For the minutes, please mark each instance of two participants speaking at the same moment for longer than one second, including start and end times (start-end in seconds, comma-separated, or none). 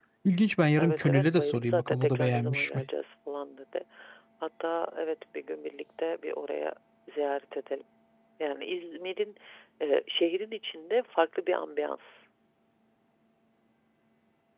0.8-2.9